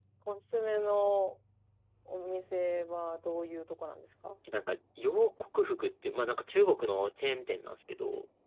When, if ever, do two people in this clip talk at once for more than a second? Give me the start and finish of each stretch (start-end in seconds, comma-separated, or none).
none